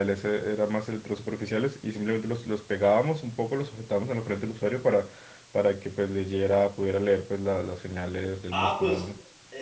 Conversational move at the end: taking over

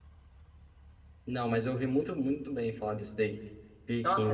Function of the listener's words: taking over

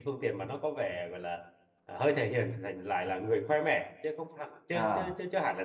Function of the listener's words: listening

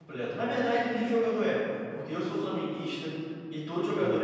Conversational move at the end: listening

